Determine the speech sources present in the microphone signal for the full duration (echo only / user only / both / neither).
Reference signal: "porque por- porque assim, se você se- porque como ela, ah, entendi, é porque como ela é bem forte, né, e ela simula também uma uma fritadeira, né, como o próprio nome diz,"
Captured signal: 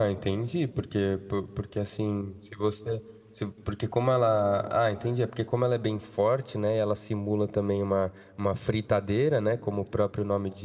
echo only